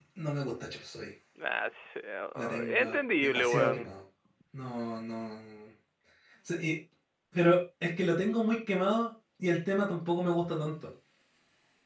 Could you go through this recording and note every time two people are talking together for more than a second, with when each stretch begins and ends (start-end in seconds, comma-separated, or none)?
2.4-3.9